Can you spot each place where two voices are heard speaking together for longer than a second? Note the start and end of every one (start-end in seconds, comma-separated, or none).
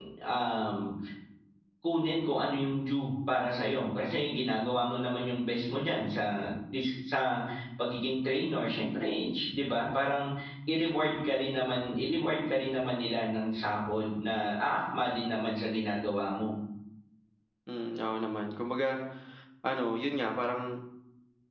none